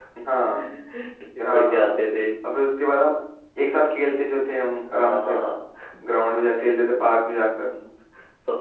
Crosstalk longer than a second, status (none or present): none